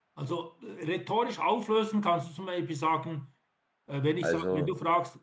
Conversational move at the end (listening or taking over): listening